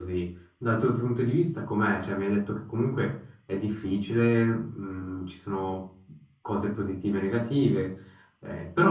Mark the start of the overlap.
none

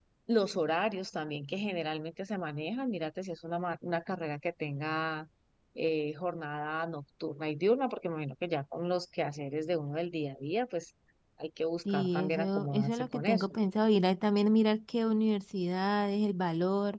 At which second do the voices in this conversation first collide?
11.9 s

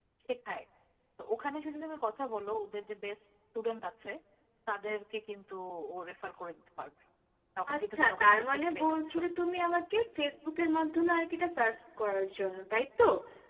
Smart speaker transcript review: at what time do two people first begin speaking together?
7.7 s

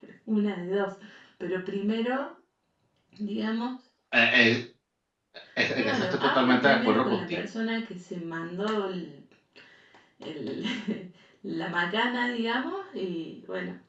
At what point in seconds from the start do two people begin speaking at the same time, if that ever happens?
5.8 s

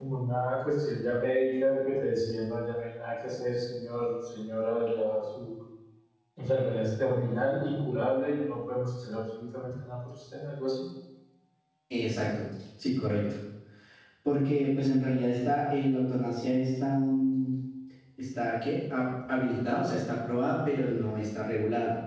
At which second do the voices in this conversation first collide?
none

